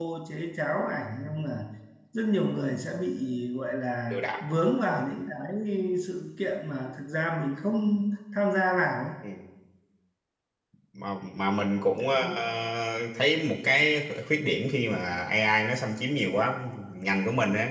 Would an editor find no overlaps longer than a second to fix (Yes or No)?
Yes